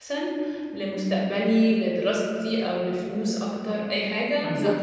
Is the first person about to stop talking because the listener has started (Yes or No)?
Yes